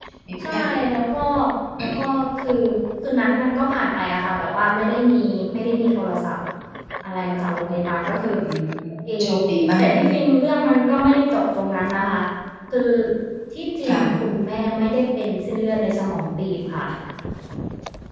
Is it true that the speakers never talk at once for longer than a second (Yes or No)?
Yes